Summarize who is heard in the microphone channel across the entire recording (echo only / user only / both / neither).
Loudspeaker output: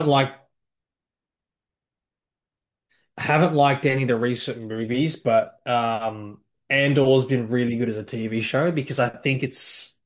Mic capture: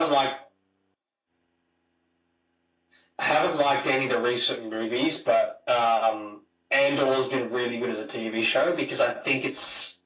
echo only